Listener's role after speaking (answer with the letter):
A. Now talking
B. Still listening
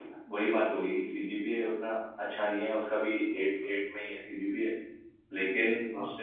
B